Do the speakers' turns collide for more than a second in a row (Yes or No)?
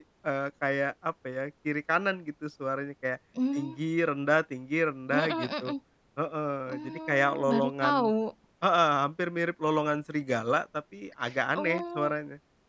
Yes